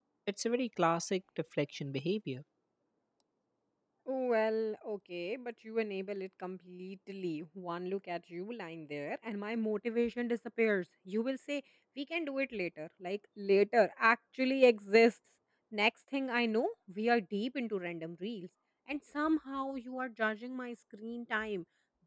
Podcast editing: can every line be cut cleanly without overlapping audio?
Yes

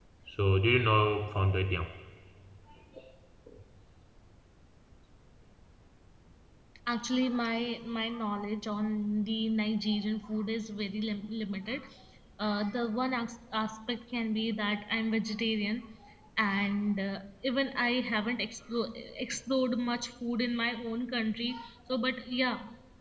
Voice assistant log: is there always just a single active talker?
Yes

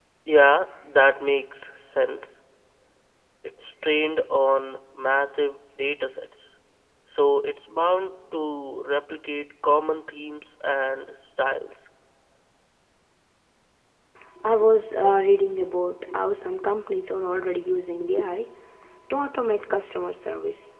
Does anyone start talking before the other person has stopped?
No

